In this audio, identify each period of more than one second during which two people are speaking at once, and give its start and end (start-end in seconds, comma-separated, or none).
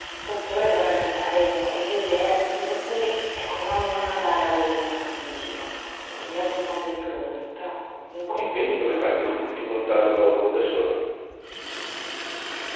8.3-10.1